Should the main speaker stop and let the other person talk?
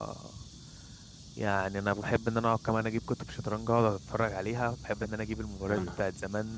No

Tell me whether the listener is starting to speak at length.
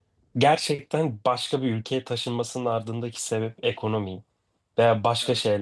No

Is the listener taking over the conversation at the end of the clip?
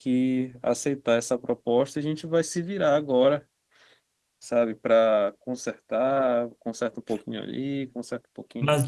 Yes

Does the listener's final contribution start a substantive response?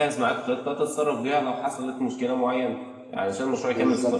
No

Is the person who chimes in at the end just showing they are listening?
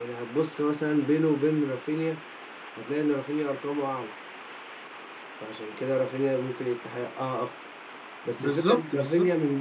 Yes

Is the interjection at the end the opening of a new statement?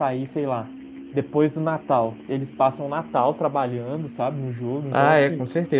Yes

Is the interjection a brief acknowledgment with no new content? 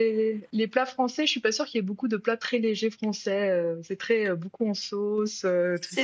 No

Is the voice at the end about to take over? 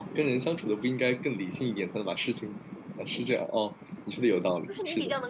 Yes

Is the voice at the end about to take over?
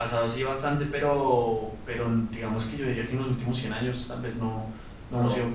No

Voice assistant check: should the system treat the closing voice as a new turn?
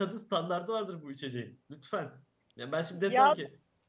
No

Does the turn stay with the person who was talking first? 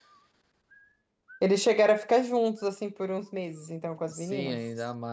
No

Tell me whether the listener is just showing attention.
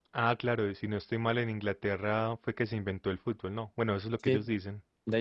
No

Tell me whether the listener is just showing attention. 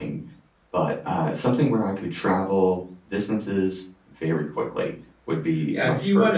No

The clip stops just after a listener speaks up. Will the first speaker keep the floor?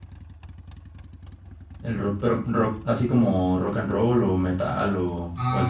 No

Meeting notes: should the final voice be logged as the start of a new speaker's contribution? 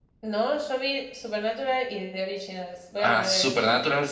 Yes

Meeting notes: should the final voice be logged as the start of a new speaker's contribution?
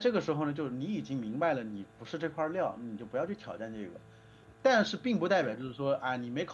No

